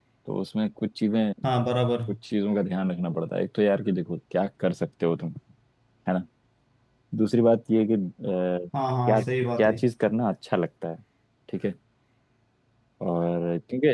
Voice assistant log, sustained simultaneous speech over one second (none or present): none